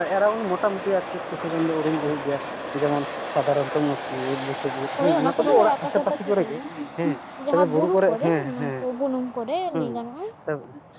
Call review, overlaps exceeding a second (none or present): present